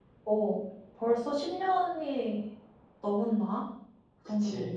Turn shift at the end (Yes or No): Yes